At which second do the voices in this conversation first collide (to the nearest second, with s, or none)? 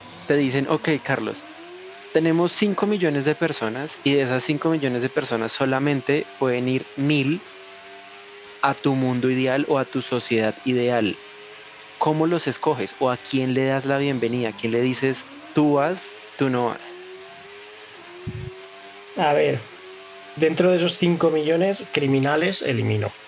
none